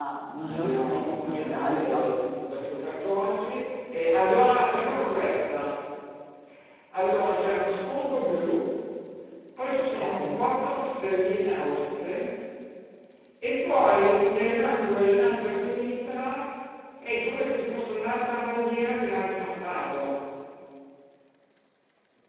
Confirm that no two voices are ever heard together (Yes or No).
No